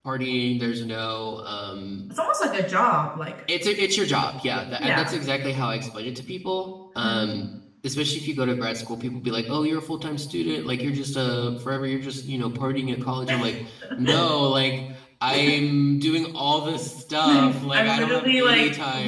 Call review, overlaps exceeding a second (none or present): present